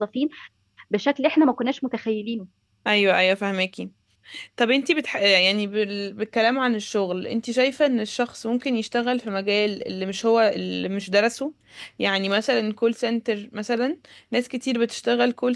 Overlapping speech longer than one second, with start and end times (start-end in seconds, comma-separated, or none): none